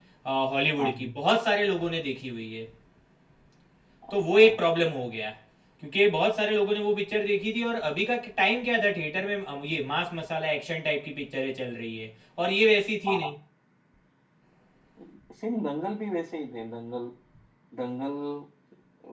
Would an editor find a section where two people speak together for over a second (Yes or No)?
No